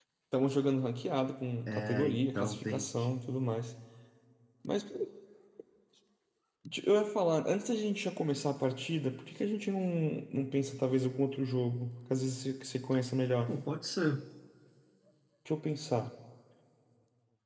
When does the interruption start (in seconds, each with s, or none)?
1.7 s